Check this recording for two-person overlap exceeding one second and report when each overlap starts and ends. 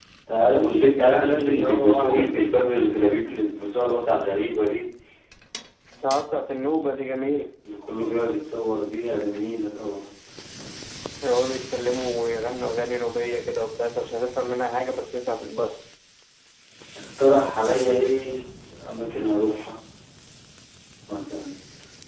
1.0-2.5

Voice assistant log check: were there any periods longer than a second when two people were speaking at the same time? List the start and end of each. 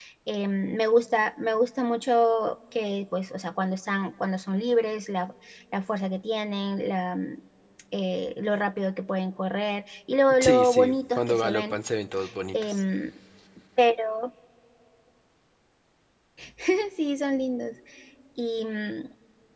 10.4-11.8

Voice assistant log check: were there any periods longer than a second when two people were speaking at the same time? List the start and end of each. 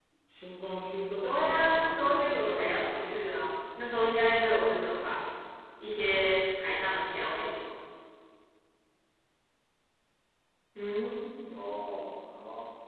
1.2-3.2

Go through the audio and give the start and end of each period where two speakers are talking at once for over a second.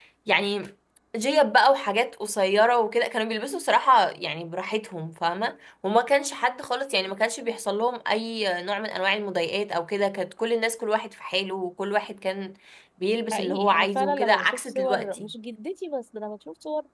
13.3-15.2

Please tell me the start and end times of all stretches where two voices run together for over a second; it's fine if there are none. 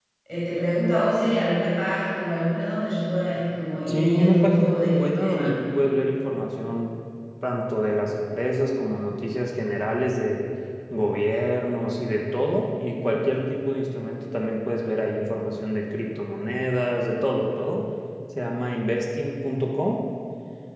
3.9-5.6

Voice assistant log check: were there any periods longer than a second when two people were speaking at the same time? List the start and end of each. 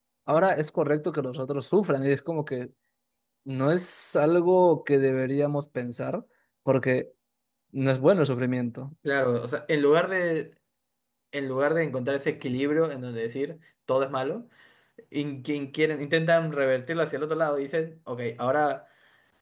none

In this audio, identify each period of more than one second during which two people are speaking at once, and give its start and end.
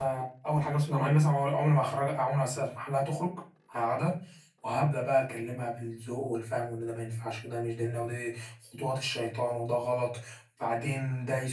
none

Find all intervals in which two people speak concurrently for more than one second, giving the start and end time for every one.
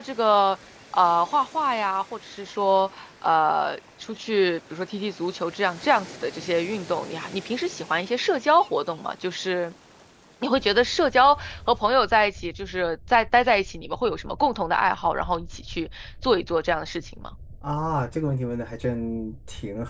none

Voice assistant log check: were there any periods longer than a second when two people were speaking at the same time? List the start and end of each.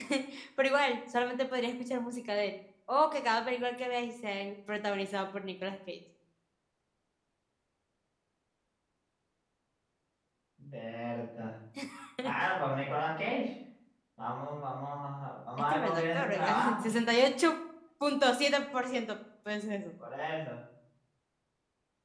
15.6-16.9

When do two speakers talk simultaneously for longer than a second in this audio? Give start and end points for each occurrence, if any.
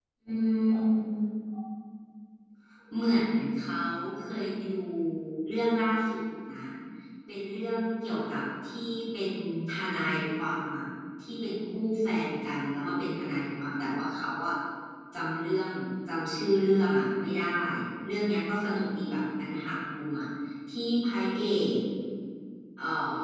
none

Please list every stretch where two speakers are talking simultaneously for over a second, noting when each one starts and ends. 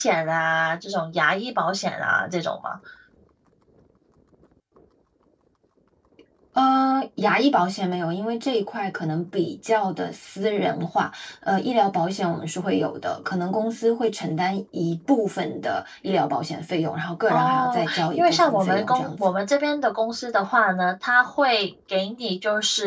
17.3-19.2

